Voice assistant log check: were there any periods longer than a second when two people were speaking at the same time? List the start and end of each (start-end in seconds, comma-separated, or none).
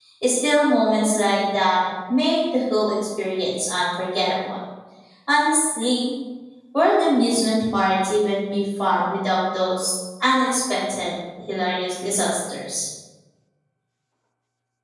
none